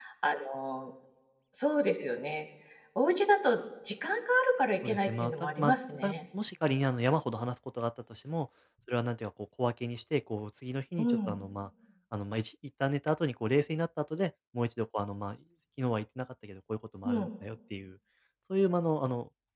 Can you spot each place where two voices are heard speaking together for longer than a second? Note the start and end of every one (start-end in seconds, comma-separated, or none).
4.8-6.2